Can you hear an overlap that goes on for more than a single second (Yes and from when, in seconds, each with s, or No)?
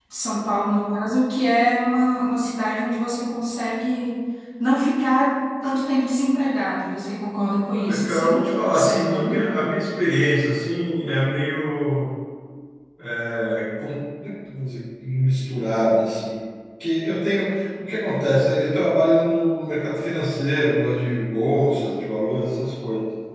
Yes, from 7.7 s